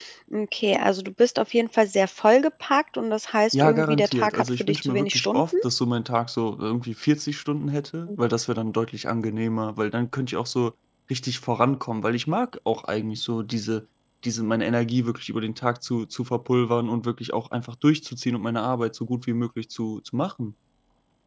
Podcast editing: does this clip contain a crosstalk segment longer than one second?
Yes, from 3.5 s

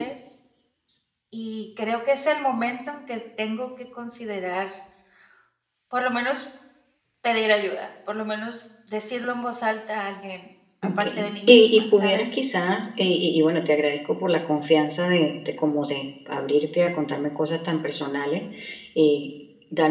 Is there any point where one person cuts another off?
Yes, from 10.8 s

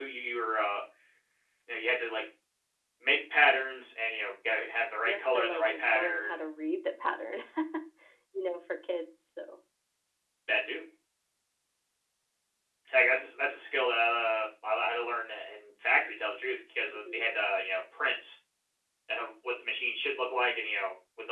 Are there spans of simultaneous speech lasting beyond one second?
Yes, from 5.0 s

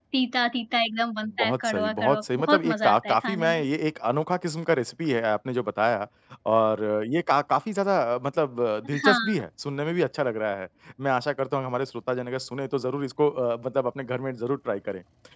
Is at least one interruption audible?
Yes, from 1.2 s

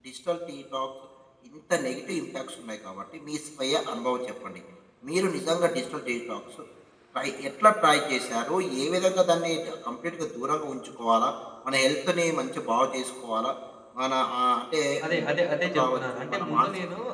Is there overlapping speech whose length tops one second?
Yes, from 15.0 s

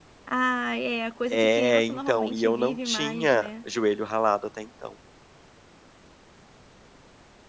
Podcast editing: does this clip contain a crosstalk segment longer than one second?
Yes, from 1.3 s

